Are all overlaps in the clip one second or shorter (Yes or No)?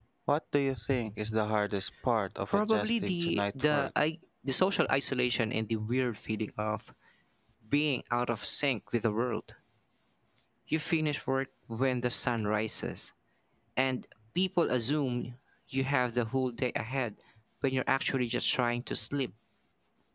No